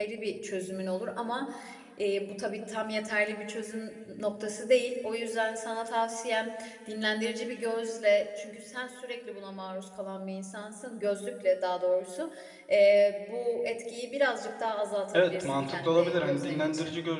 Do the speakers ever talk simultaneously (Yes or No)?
Yes